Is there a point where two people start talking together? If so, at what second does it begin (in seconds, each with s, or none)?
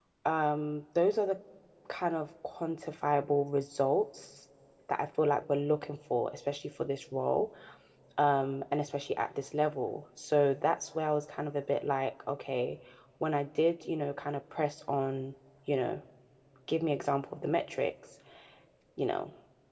none